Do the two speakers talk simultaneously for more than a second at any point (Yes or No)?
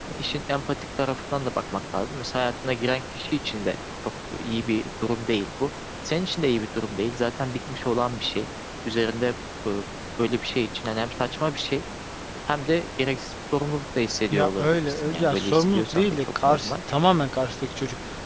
Yes